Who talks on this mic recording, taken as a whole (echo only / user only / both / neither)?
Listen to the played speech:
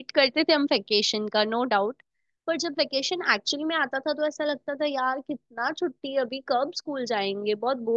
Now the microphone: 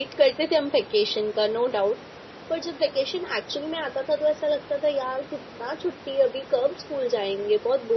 echo only